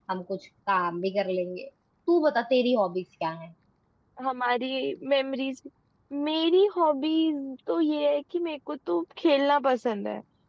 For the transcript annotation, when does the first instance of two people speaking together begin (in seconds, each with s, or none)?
none